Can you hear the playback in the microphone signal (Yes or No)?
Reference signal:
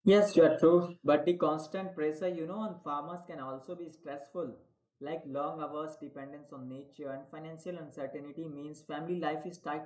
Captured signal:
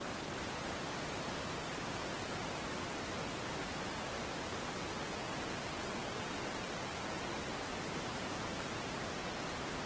No